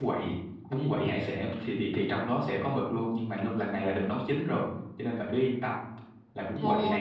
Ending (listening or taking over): taking over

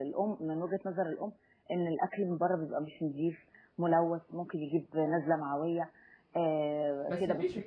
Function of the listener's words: taking over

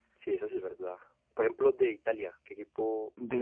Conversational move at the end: taking over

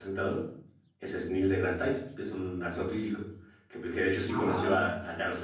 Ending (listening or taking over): listening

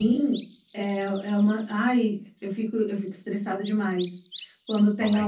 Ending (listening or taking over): listening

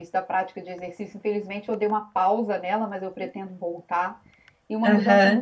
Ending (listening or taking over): listening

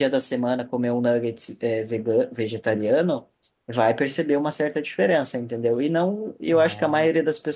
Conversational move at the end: listening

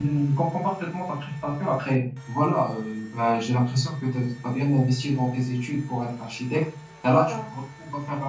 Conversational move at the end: listening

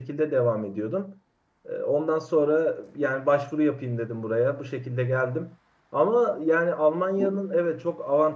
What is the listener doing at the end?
listening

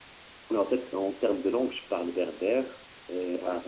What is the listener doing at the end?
listening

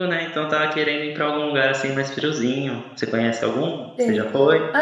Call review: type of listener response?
taking over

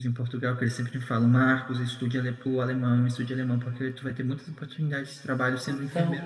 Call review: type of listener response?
listening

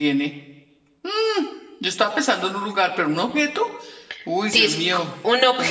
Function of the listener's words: taking over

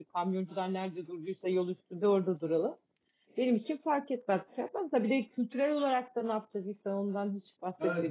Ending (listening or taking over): taking over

